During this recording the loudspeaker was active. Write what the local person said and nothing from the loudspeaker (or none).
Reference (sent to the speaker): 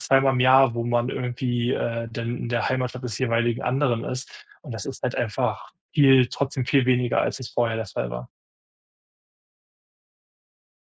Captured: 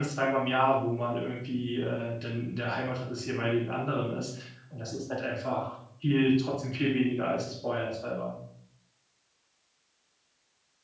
none